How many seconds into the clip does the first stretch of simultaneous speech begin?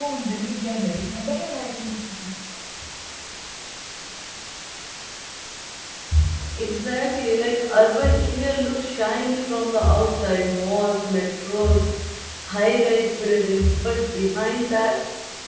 none

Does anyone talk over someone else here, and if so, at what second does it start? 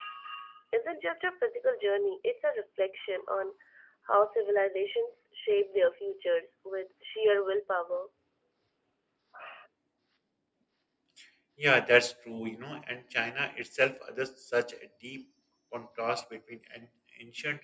none

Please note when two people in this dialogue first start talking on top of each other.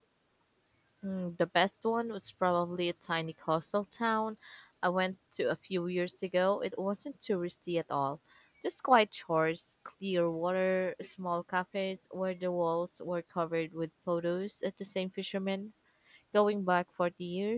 none

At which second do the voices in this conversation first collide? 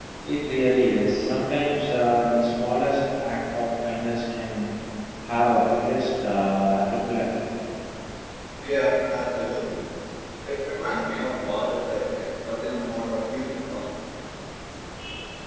none

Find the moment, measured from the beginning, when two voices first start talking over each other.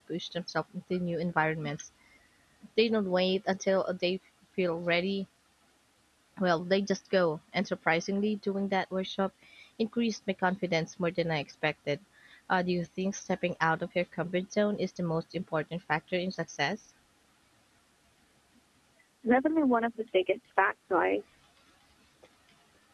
none

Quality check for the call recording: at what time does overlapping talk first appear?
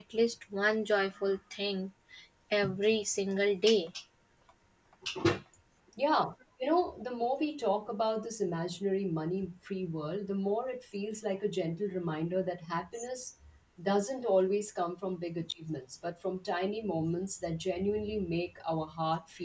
none

